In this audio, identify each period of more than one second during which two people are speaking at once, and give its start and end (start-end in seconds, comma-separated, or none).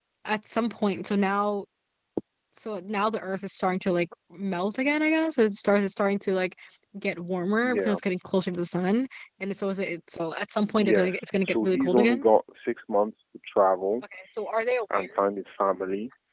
10.8-12.2